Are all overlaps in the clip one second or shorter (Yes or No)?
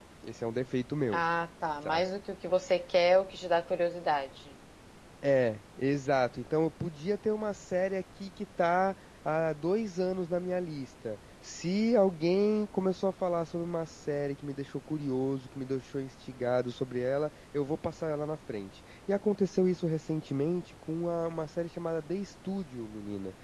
Yes